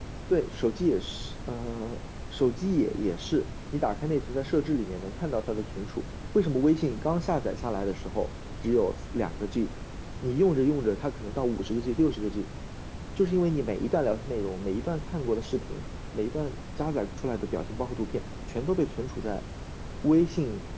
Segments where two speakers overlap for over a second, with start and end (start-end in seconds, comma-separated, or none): none